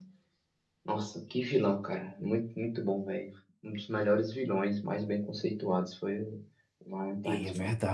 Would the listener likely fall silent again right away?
No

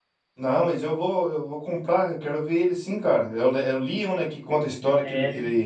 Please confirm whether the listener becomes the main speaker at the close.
No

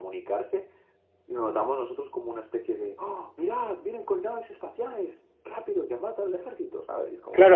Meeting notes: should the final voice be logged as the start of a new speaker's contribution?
Yes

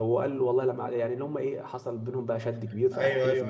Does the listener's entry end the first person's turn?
Yes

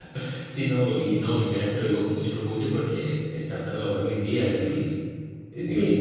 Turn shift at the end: No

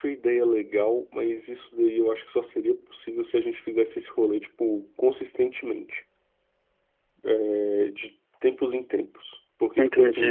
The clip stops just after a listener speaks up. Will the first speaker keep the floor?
No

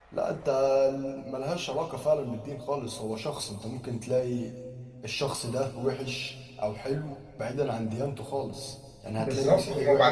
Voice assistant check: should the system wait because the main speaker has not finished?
No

